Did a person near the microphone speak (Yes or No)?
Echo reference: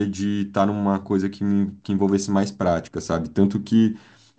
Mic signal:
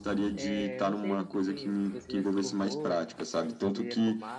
Yes